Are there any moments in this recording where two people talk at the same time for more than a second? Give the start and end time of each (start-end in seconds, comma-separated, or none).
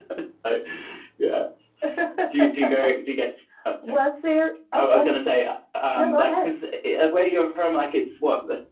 none